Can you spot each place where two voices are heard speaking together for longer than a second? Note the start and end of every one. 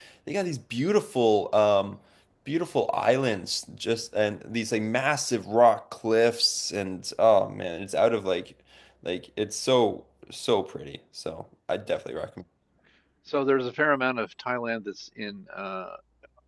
none

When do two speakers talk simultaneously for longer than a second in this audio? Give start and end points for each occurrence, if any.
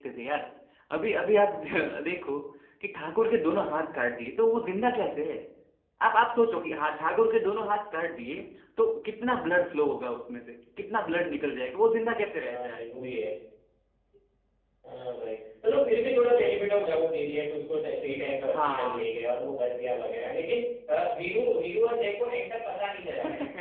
none

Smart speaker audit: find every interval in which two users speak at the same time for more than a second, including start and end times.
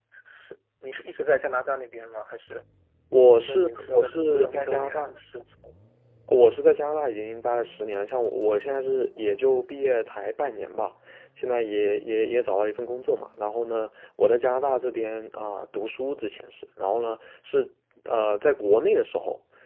3.4-5.1

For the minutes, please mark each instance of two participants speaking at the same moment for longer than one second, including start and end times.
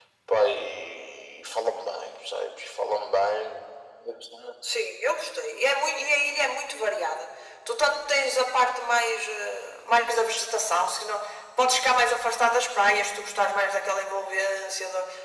none

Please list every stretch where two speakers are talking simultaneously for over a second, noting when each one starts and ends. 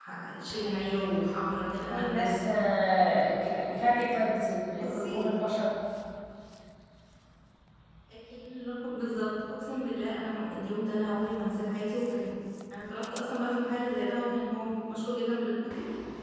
1.7-3.9

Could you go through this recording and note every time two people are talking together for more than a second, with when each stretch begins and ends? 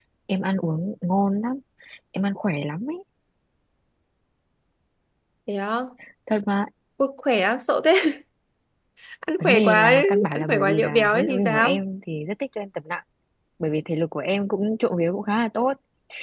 9.4-11.8

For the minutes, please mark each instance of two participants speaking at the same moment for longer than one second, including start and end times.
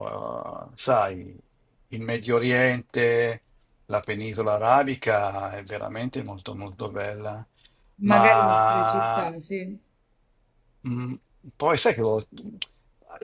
8.0-9.3

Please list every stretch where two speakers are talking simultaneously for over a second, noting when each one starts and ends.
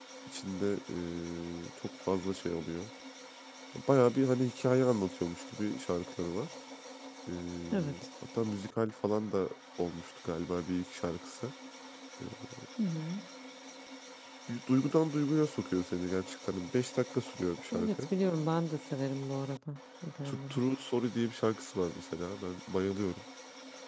none

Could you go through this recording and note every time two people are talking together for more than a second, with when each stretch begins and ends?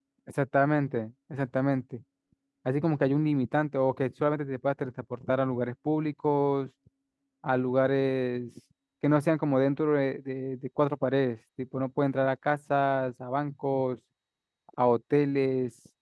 none

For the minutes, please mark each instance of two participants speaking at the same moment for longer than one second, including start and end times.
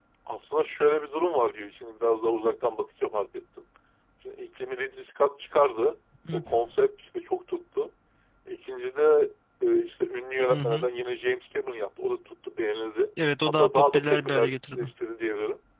13.5-14.9

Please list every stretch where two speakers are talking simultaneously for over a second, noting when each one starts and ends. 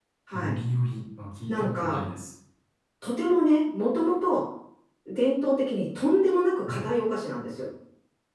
none

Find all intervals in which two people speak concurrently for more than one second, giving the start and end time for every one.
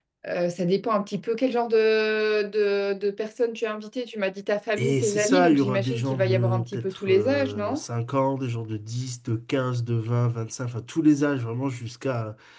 4.8-7.8

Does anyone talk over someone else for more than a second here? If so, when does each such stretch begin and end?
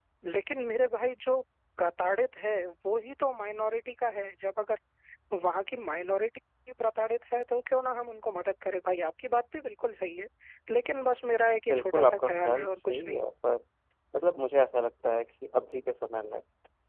11.7-13.2

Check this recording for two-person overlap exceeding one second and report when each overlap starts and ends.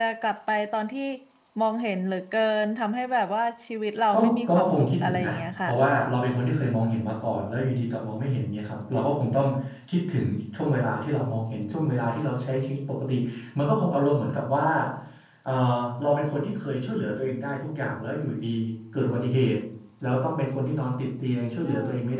4.1-5.7

